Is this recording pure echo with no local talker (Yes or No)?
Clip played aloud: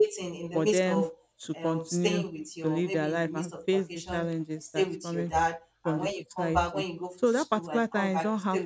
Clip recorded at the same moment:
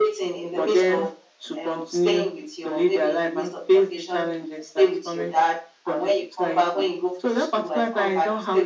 Yes